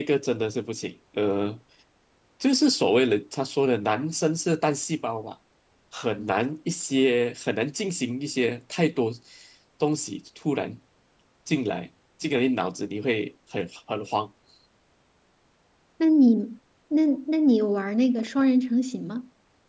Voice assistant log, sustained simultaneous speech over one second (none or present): none